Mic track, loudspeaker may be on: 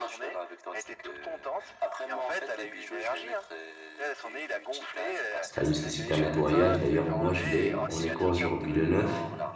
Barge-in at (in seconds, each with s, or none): 5.5 s